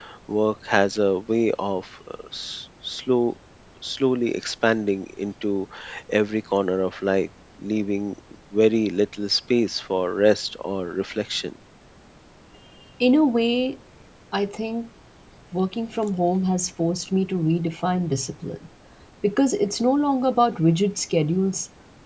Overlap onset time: none

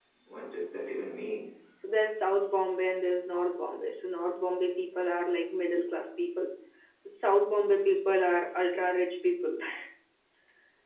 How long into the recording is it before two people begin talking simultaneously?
none

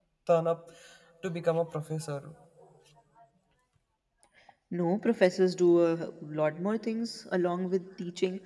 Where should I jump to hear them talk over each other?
none

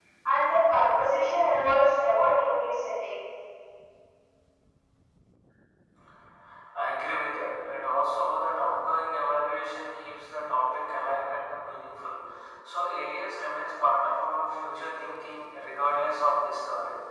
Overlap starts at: none

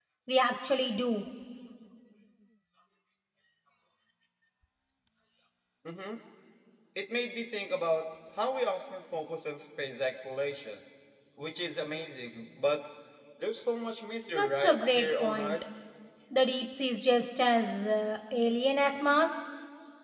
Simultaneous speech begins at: 14.3 s

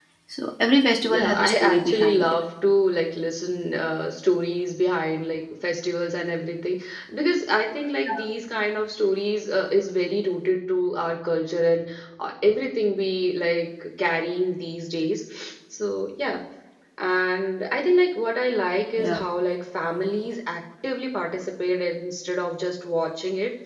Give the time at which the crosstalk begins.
1.1 s

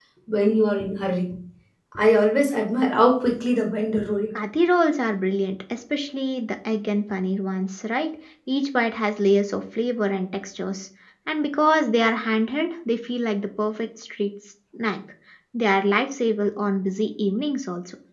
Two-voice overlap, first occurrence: none

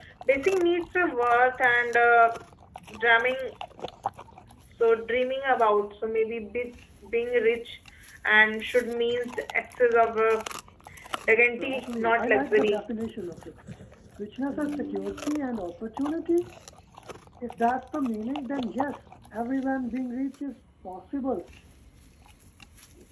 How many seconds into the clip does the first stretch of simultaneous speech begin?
11.4 s

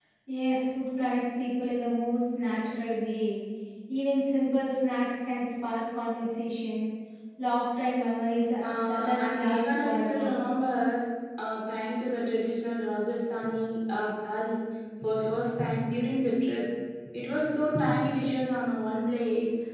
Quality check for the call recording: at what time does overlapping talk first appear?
8.6 s

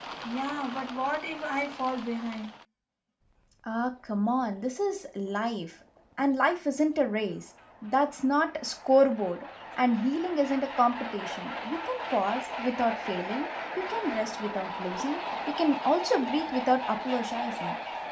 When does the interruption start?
none

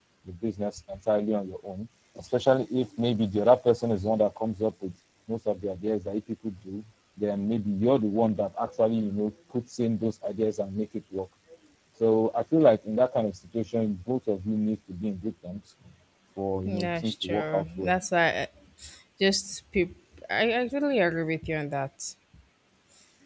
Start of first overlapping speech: 16.6 s

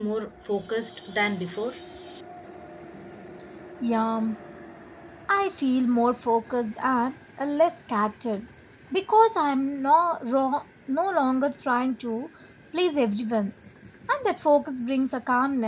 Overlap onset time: none

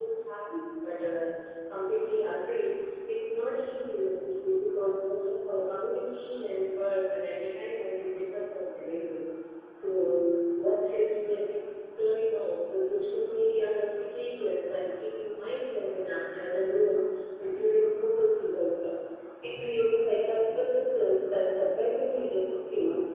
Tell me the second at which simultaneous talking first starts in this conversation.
none

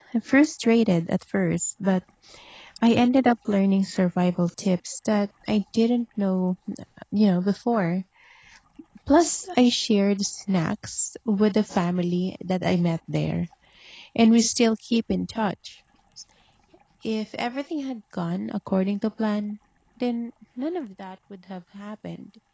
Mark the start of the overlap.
none

